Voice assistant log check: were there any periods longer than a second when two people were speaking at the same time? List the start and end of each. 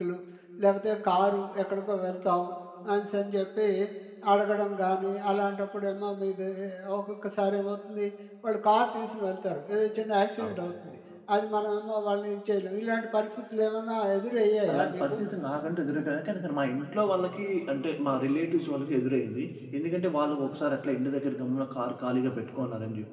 none

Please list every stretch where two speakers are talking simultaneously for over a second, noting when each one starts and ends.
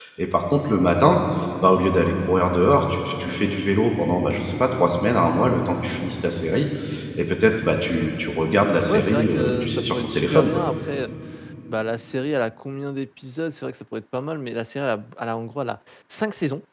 8.9-10.6

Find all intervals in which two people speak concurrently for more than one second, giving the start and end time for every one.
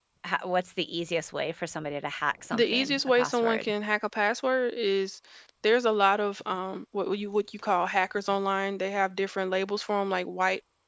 2.5-3.7

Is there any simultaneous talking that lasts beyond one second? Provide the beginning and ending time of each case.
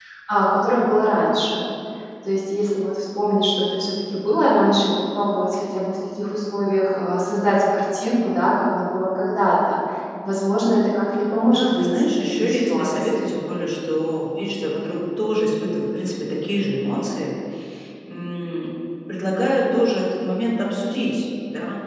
11.5-13.3

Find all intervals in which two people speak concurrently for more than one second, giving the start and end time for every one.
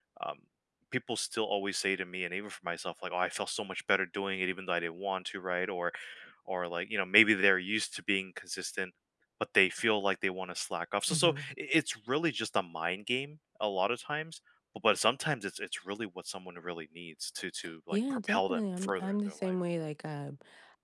17.9-19.5

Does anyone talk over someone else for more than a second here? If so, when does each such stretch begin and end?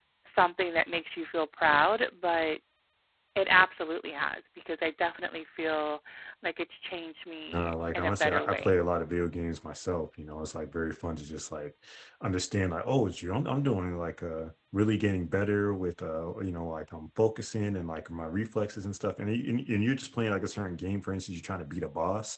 7.5-8.8

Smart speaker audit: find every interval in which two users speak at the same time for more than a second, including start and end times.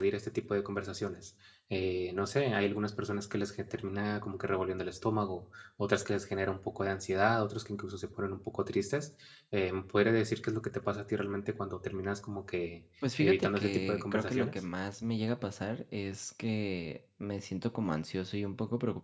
13.2-14.5

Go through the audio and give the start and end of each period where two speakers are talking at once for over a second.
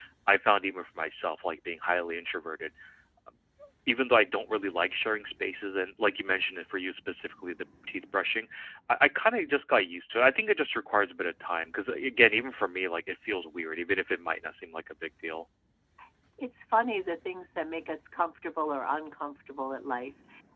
none

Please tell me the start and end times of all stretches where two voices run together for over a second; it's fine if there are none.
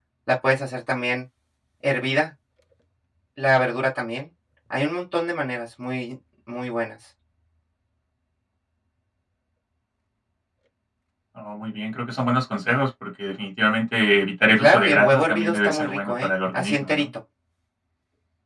14.6-16.9

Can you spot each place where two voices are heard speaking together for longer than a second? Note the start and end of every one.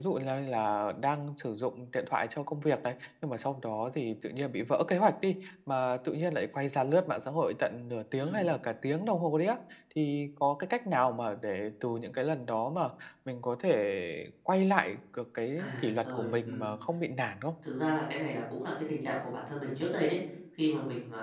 15.5-16.7

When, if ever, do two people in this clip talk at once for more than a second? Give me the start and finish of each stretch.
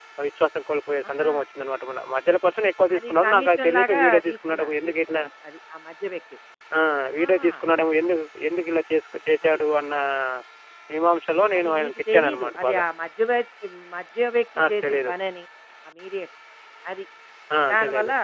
3.0-5.2, 11.6-12.8

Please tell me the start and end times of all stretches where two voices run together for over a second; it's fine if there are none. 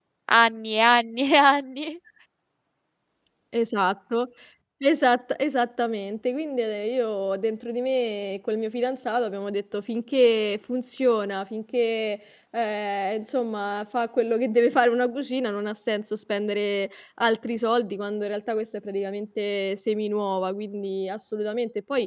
none

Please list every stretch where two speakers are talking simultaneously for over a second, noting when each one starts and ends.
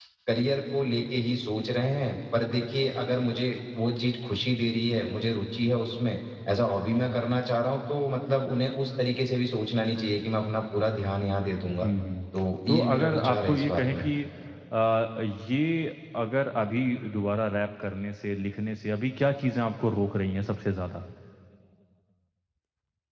12.7-14.1

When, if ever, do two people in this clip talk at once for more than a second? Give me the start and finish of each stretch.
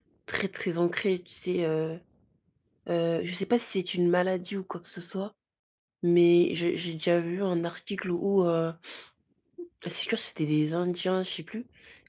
none

